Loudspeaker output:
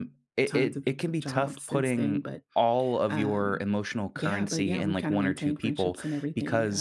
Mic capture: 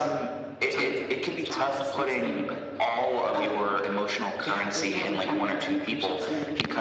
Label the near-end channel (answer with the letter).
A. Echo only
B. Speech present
A